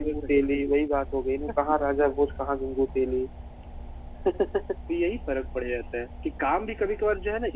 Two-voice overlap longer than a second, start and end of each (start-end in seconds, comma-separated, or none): none